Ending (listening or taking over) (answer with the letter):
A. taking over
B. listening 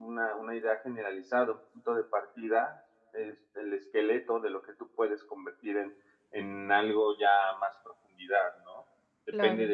B